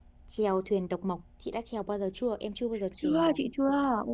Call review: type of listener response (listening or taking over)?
taking over